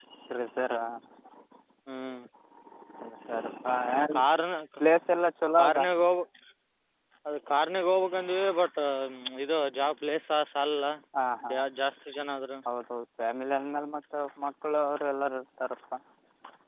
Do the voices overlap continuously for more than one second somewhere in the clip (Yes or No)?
No